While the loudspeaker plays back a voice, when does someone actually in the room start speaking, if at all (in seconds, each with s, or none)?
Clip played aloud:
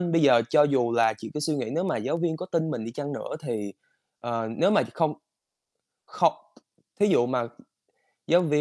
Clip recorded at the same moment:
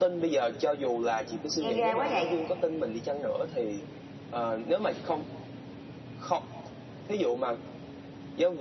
1.6 s